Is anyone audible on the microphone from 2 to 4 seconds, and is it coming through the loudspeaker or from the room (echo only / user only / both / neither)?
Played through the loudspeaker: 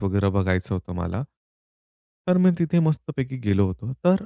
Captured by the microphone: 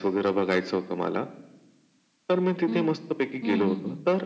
both